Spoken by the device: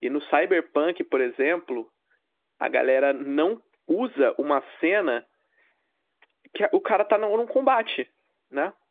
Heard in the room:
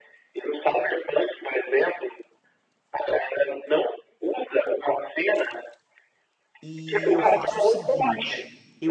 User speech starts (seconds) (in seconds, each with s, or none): 6.6 s